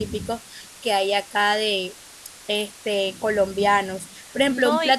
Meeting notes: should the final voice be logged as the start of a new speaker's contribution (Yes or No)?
No